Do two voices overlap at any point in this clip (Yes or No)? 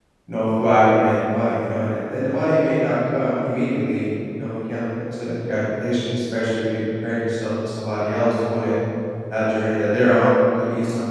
No